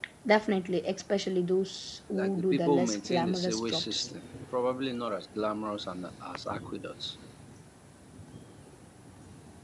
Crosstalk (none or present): present